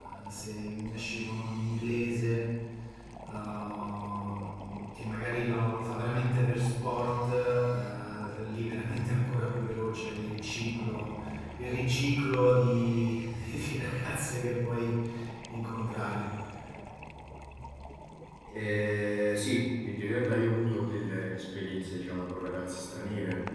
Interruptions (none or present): none